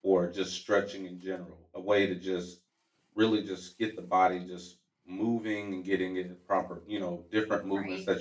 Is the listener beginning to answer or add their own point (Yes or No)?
Yes